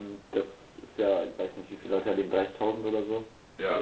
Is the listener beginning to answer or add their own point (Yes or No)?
No